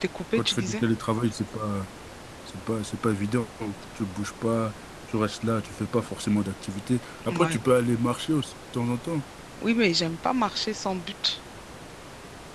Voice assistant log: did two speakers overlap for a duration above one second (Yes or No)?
No